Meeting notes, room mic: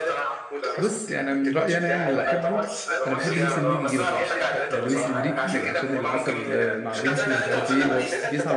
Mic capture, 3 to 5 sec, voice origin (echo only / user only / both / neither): both